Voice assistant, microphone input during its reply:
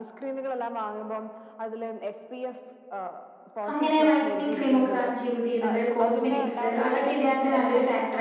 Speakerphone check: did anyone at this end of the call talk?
Yes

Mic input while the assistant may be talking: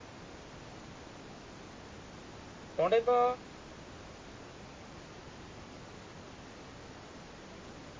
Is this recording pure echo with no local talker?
No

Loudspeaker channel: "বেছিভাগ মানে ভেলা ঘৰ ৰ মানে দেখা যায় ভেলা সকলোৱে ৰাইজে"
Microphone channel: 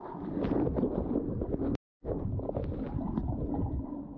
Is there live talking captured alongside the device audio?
No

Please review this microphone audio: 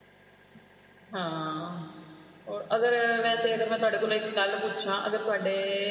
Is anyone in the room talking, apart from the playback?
Yes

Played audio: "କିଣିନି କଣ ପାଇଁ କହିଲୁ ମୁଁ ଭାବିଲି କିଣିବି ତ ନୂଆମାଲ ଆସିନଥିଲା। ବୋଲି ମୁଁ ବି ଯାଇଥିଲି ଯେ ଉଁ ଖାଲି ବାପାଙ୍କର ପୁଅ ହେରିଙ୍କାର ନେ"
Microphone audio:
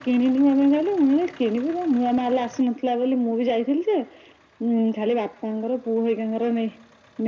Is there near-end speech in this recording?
No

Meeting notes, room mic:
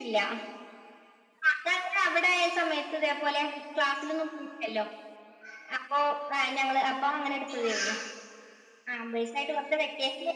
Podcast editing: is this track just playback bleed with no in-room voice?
Yes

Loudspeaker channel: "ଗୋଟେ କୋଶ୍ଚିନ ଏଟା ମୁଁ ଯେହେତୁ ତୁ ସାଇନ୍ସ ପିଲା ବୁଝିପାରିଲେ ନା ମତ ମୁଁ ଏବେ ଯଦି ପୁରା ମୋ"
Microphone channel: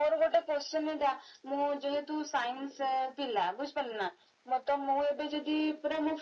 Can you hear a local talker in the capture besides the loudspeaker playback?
No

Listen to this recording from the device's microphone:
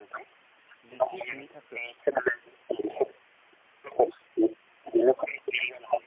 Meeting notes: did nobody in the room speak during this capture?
No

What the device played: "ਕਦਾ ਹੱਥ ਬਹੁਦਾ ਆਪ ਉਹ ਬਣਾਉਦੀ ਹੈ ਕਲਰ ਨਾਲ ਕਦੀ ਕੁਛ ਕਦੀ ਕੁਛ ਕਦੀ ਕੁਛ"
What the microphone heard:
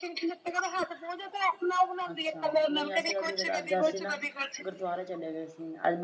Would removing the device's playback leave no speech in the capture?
No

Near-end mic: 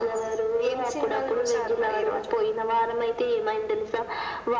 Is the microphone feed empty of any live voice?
Yes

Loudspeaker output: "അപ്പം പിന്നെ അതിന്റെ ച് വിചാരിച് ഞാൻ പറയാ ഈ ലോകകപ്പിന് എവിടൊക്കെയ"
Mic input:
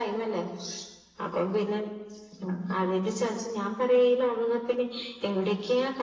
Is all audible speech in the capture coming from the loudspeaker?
Yes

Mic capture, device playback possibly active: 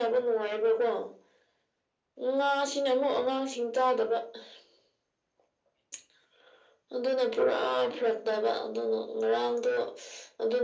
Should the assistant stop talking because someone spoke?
No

